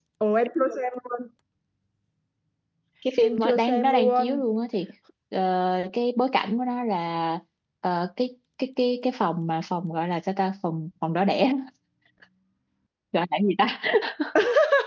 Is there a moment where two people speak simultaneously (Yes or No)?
Yes